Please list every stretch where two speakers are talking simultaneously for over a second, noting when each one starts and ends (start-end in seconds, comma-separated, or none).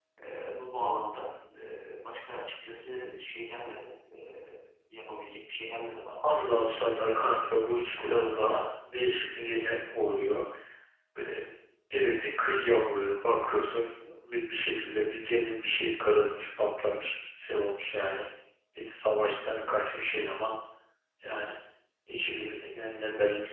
7.0-8.3